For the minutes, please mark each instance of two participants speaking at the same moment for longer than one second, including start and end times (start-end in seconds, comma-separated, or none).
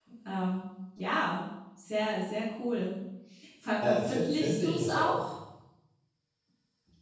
3.9-5.2